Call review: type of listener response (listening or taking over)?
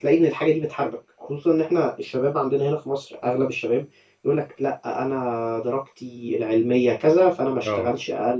listening